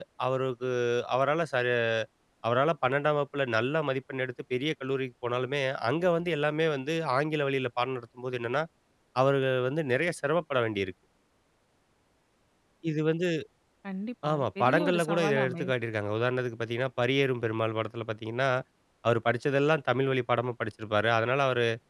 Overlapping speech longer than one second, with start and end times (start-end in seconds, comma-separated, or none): 14.3-15.7